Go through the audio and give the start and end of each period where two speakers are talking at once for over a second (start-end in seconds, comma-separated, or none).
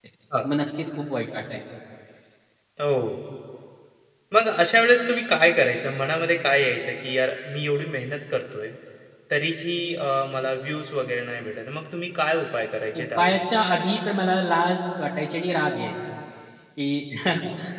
none